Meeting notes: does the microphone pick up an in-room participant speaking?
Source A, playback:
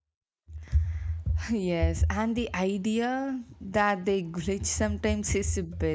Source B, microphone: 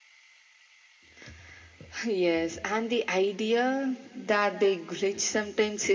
No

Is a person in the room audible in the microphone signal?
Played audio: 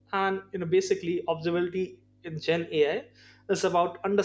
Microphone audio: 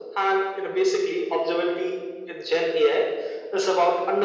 No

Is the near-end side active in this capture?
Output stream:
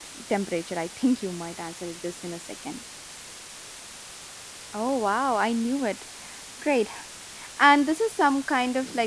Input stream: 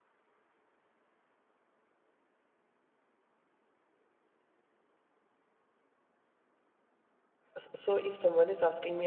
Yes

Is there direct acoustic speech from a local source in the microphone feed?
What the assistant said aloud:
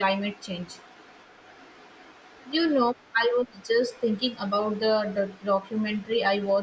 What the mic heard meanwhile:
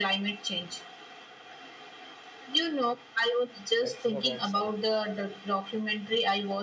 Yes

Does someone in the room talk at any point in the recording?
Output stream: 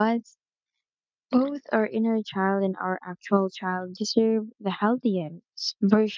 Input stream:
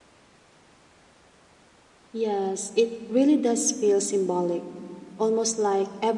Yes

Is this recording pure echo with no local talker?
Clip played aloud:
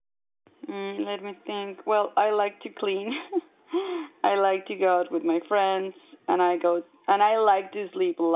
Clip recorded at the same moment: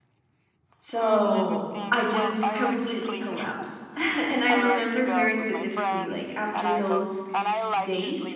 No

